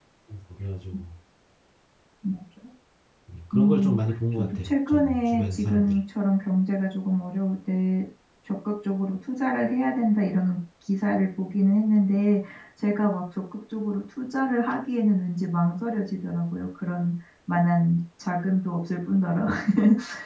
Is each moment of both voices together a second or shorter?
No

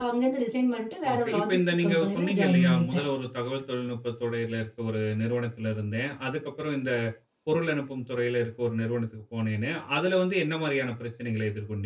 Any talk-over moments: Yes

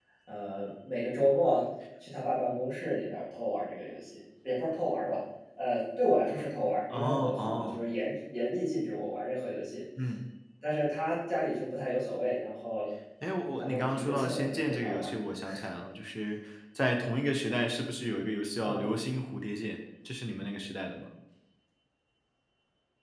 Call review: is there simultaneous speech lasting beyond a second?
Yes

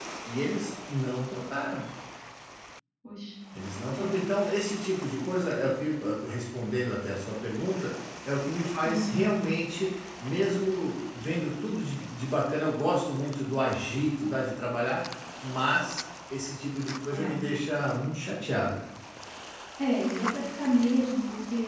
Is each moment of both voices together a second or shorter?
Yes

